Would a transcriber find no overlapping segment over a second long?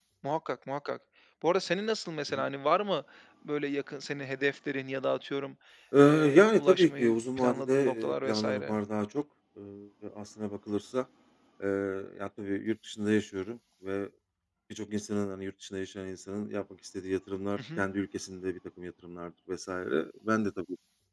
No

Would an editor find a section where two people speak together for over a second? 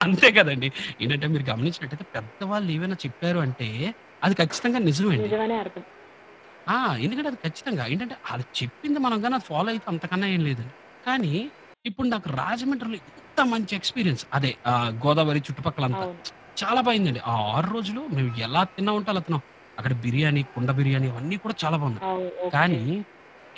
No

